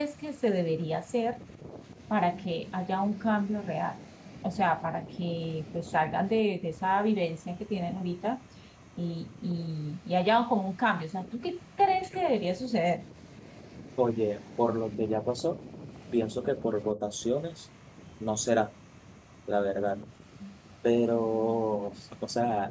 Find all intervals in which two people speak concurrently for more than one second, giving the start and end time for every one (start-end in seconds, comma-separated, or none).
none